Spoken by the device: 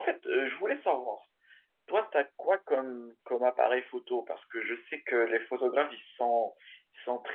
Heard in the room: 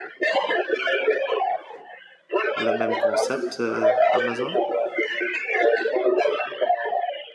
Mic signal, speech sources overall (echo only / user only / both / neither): both